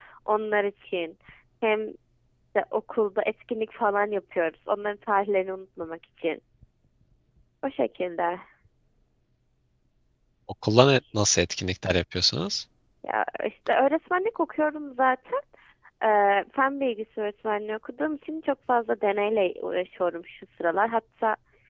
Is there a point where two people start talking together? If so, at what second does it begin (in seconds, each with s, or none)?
none